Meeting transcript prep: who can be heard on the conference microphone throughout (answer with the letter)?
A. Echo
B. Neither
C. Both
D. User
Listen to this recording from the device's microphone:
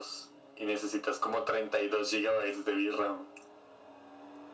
A